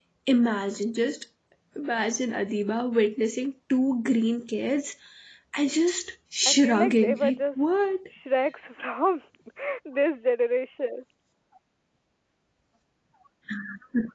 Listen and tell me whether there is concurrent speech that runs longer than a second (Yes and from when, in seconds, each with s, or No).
Yes, from 6.5 s